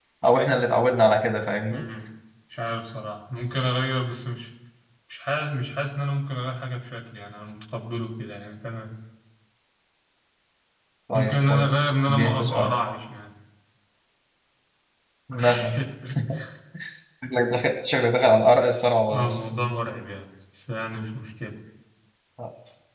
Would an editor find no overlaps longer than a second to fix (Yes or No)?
No